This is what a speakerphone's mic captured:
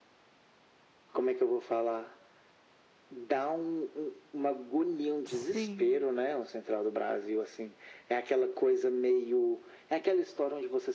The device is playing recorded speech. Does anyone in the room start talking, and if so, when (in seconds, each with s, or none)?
5.2 s